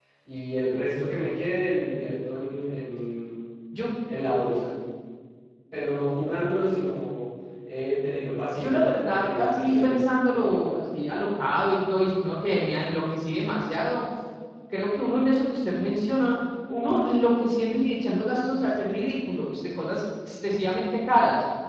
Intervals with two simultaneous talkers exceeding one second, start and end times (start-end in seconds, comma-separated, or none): 8.6-10.0